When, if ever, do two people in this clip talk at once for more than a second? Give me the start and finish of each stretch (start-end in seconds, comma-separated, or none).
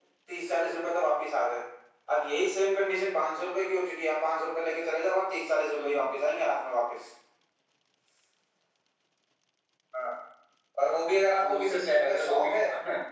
11.3-12.6